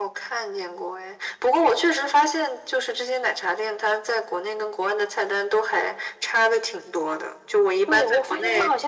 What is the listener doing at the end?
taking over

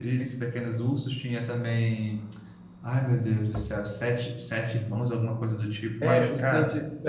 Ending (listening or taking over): taking over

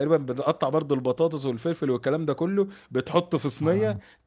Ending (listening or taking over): listening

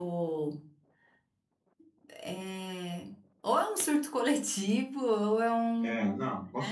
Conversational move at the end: taking over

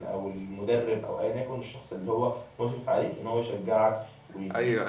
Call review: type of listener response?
taking over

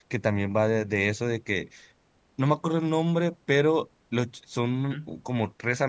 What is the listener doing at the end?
listening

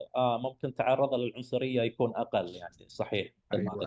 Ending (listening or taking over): taking over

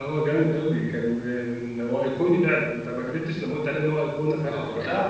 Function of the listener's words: taking over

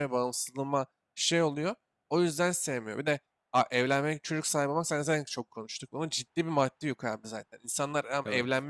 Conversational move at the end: listening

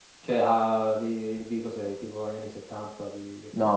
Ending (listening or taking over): taking over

